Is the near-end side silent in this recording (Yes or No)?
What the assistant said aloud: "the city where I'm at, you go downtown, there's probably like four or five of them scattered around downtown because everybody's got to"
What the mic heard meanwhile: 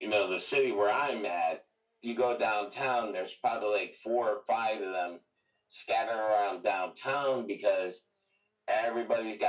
Yes